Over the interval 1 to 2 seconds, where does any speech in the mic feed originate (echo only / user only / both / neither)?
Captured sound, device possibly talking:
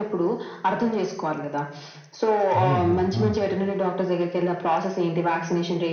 echo only